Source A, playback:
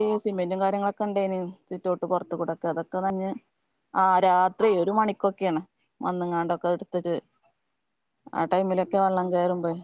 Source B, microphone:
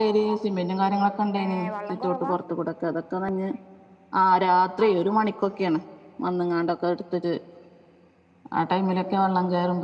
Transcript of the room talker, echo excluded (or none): ഏഹ് വള്ളം കുറവാ